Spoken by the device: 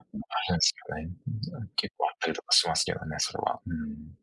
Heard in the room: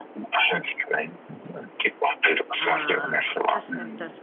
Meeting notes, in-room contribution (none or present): present